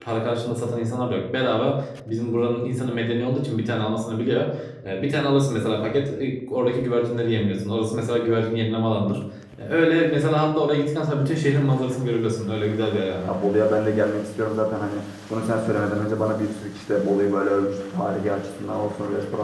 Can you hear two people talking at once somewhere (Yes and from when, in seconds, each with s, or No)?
No